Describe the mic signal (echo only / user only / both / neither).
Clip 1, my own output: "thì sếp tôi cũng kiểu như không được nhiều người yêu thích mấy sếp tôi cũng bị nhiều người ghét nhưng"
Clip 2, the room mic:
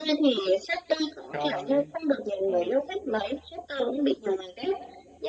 both